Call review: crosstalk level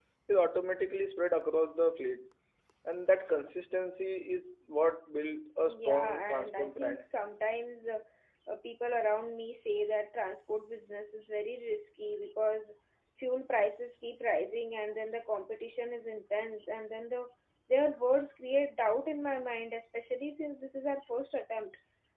present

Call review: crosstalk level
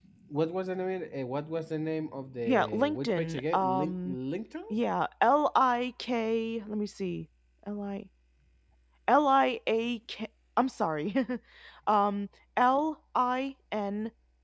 present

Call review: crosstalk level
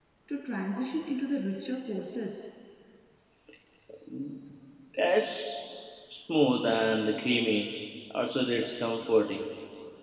none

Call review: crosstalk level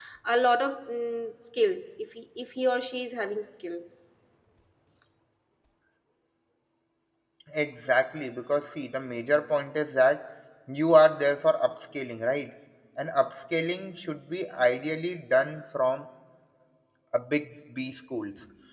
none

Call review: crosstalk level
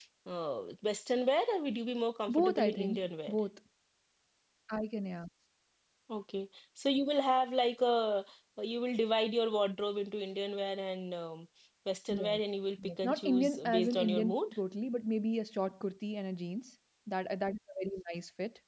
present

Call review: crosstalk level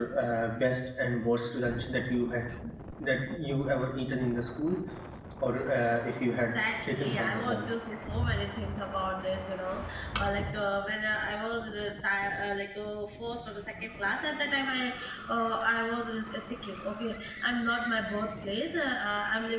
present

